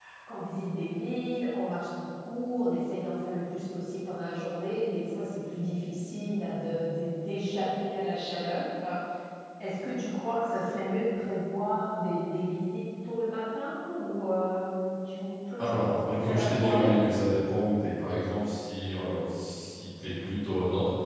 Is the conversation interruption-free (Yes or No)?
No